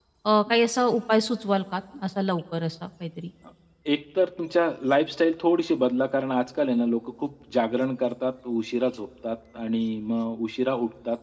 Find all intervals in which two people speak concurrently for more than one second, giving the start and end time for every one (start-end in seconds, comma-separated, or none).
none